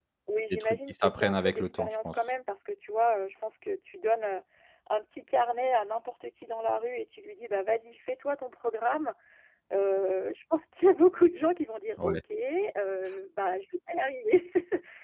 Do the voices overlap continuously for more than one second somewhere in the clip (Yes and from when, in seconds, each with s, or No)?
Yes, from 0.5 s